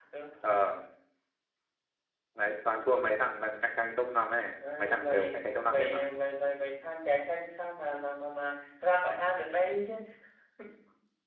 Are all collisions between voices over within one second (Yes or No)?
No